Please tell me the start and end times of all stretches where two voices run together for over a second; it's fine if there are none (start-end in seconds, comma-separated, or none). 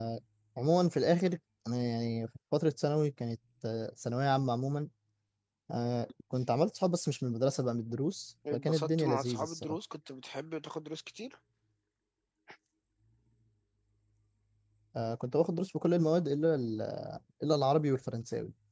8.5-9.8